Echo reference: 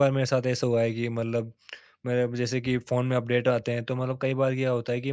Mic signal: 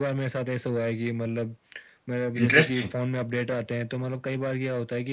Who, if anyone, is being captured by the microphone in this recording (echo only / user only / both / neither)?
both